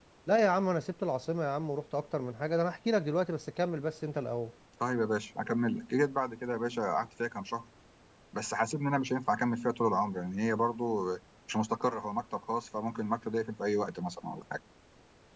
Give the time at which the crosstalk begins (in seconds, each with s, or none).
none